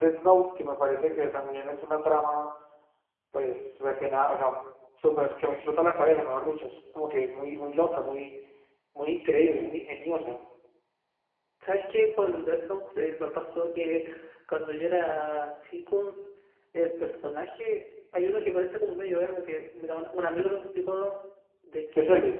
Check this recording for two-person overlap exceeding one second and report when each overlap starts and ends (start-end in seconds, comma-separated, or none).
none